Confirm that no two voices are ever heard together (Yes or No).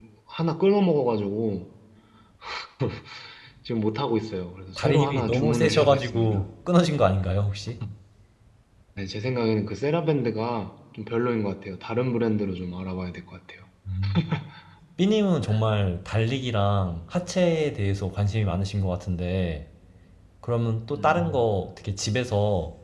No